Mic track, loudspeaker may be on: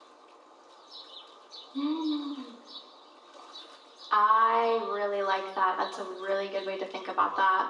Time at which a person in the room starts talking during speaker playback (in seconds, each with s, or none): none